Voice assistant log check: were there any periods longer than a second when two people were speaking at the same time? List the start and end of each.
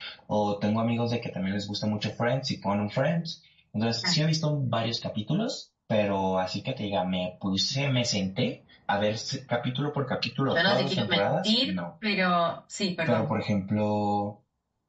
10.5-11.8

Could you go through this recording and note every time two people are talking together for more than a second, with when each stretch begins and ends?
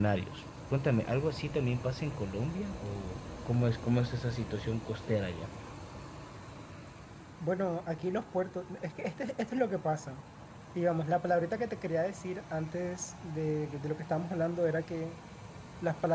none

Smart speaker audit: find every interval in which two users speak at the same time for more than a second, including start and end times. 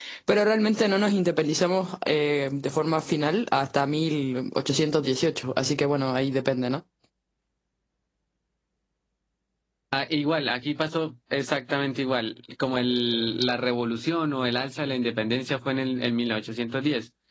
none

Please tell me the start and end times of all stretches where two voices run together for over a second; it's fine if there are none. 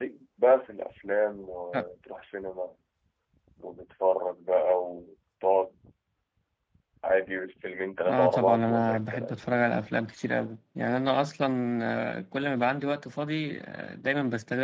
8.1-9.4

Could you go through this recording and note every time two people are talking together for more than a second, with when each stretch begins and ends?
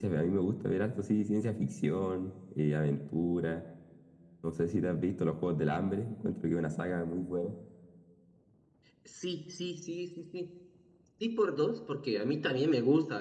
none

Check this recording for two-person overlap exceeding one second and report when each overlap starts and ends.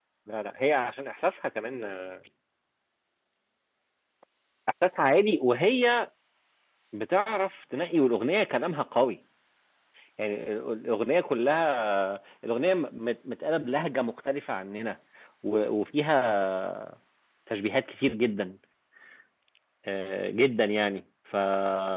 none

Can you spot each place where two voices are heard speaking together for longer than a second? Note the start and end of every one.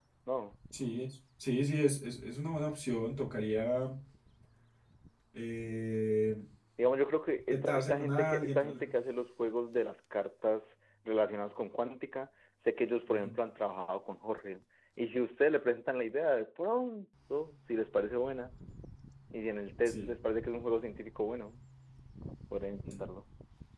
7.5-8.8

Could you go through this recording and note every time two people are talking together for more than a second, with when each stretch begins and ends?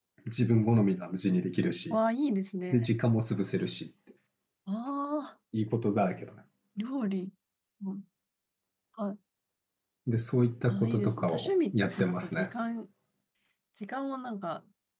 10.7-12.5

